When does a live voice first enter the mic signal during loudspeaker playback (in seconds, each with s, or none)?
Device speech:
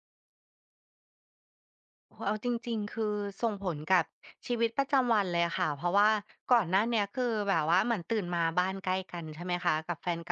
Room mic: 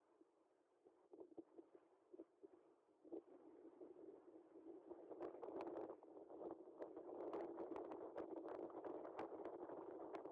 none